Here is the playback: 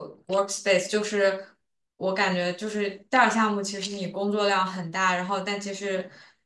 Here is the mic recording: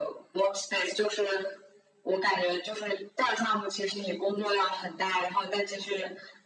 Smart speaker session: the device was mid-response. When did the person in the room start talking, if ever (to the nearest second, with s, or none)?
none